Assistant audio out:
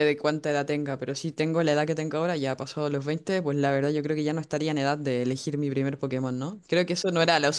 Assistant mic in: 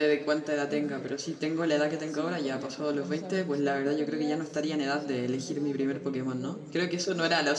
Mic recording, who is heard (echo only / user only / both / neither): both